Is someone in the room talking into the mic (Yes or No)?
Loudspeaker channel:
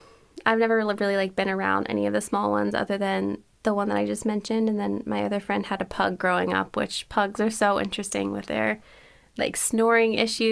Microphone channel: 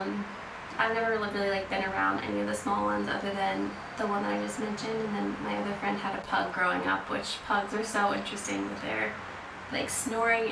No